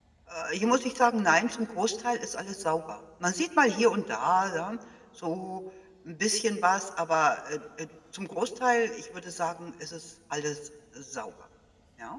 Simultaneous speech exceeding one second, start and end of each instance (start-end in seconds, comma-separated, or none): none